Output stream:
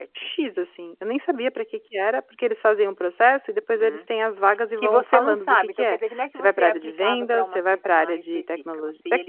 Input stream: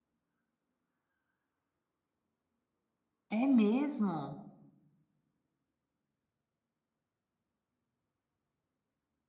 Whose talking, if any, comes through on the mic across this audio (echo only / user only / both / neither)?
user only